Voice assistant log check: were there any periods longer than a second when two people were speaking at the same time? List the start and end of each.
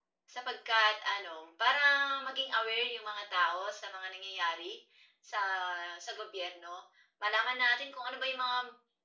none

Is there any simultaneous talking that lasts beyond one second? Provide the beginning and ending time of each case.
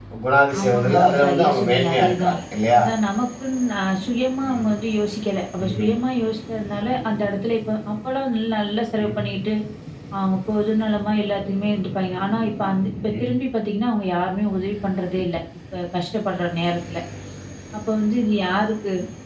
0.6-2.3

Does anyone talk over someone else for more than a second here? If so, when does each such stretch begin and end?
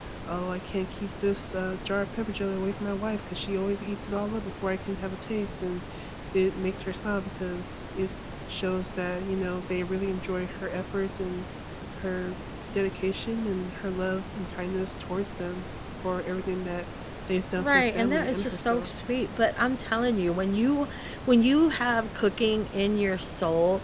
17.6-18.9

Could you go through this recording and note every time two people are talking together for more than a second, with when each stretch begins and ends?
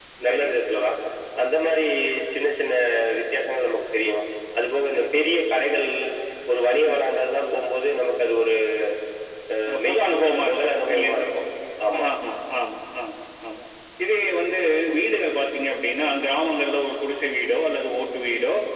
9.8-11.2

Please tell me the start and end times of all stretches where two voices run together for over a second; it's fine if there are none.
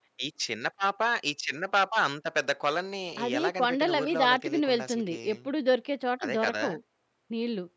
3.4-5.2

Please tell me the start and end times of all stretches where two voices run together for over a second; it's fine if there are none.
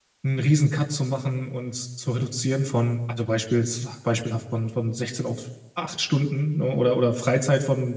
none

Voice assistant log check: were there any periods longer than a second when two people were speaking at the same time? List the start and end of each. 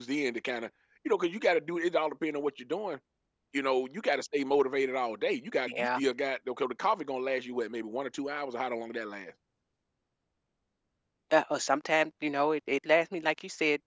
none

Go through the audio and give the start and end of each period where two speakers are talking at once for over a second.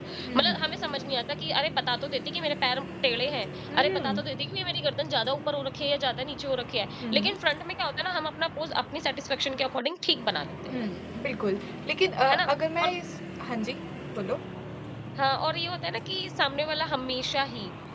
none

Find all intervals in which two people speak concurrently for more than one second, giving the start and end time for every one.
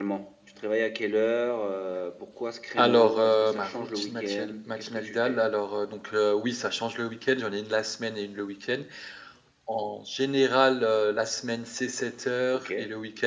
2.8-5.4

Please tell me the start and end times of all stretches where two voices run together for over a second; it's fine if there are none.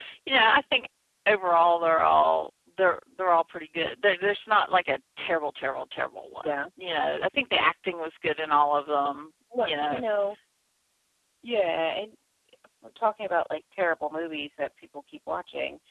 none

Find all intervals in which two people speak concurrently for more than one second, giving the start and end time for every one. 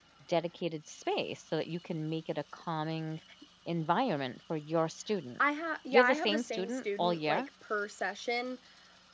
5.9-7.5

